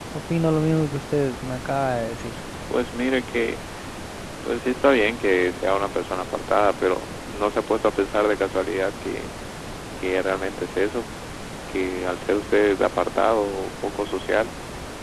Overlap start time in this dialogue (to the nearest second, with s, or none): none